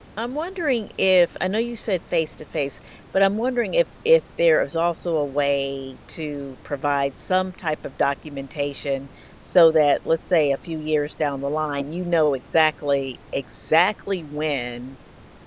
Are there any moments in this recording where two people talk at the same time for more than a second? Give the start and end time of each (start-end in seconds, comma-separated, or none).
none